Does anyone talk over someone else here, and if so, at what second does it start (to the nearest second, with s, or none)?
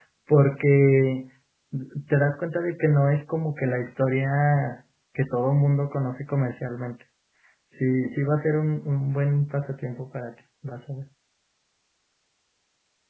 none